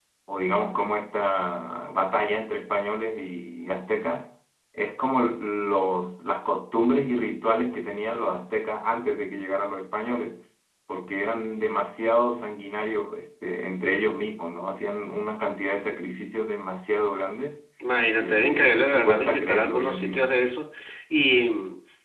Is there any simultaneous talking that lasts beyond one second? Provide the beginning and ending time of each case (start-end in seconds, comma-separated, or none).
18.2-20.2